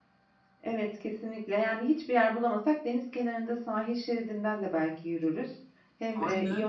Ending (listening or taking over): listening